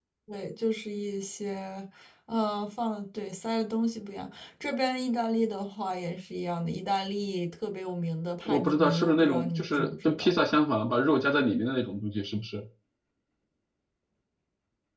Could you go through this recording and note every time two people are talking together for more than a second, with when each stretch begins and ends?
8.4-10.3

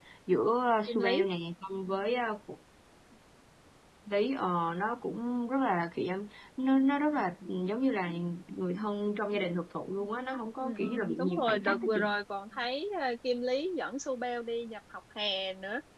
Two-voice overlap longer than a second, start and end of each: 10.6-12.1

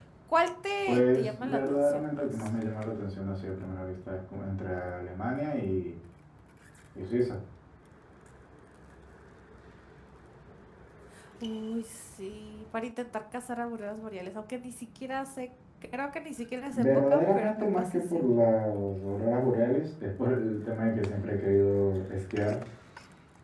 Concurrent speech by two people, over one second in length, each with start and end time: 0.9-2.5, 16.7-18.2

